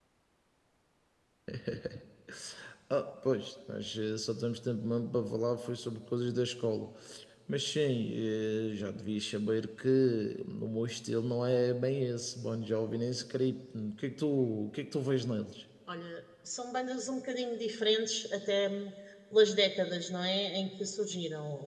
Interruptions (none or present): none